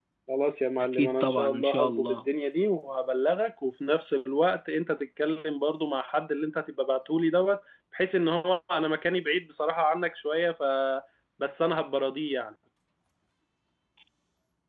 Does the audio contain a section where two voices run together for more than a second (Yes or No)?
Yes